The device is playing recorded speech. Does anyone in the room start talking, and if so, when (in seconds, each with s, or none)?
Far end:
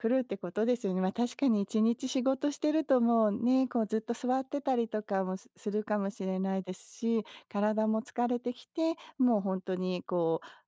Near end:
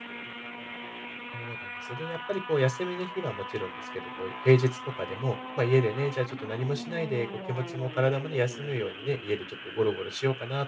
1.3 s